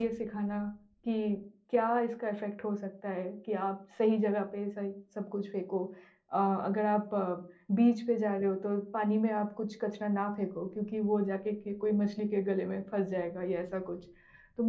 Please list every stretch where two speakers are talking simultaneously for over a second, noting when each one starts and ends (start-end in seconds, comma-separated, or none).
none